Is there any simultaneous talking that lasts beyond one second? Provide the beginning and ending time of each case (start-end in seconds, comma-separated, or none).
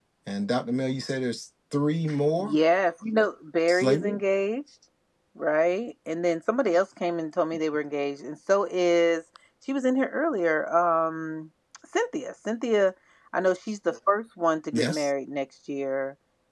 none